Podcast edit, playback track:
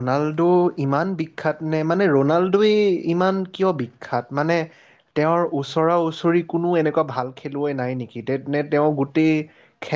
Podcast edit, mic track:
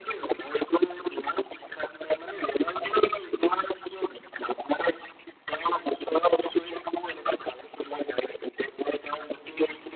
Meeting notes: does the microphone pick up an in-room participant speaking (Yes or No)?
No